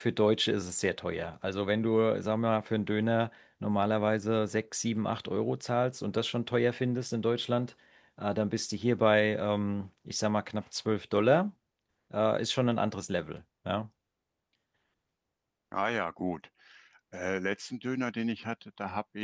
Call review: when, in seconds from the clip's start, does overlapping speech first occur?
none

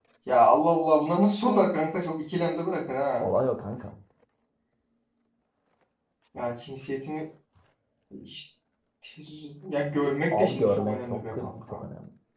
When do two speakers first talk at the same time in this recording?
10.3 s

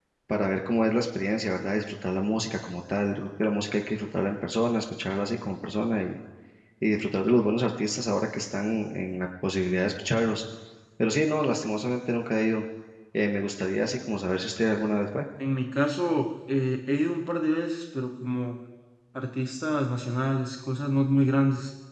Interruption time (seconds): none

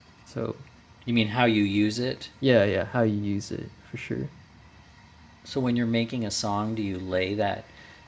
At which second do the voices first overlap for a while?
none

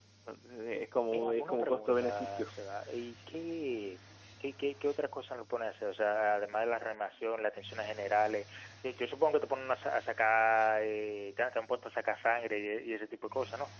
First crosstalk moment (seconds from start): 1.1 s

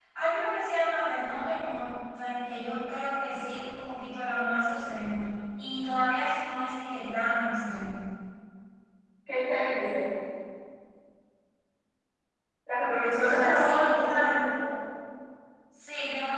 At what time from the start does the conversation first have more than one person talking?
13.1 s

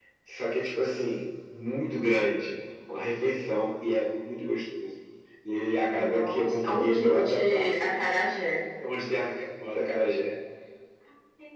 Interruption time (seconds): 5.9 s

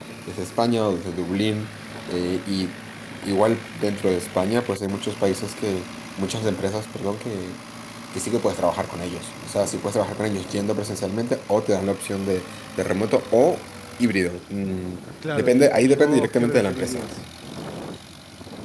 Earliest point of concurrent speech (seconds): 15.3 s

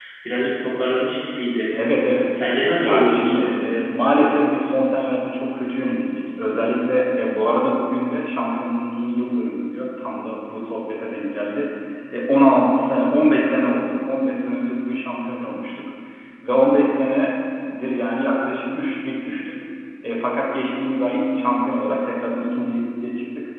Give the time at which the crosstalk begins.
2.3 s

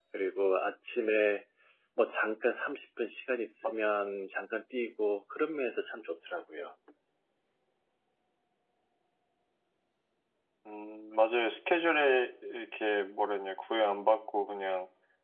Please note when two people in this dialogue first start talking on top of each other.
none

